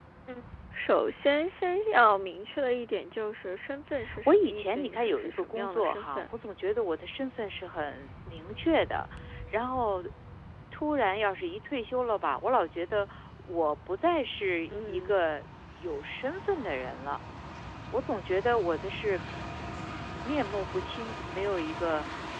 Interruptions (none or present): present